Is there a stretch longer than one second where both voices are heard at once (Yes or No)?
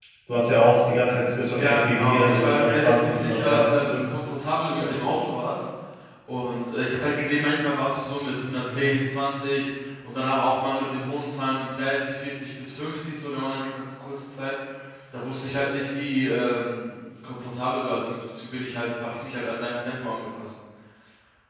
Yes